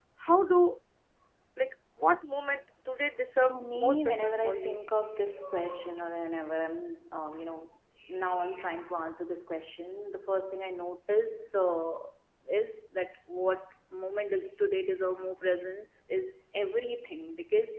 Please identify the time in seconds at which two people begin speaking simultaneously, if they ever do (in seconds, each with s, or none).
3.5 s